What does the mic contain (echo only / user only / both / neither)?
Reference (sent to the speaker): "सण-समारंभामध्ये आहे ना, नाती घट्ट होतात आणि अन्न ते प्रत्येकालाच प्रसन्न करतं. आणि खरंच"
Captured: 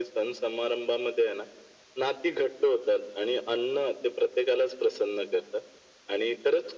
echo only